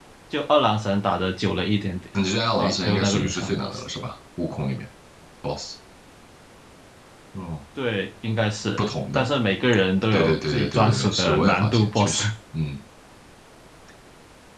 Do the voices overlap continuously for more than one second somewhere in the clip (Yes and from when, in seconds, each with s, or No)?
Yes, from 2.6 s